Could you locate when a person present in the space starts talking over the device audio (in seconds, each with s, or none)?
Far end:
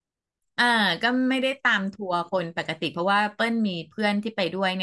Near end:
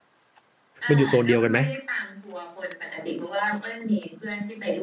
0.9 s